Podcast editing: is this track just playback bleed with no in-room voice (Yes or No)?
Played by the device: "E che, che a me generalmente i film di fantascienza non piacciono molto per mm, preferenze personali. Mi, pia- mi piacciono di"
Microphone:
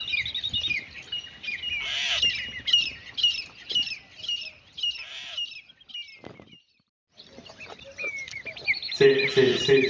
No